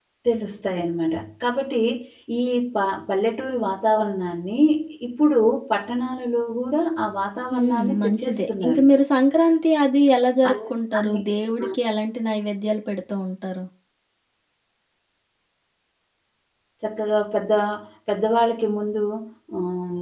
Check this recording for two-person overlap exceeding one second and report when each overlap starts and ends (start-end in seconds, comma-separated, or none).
7.5-8.8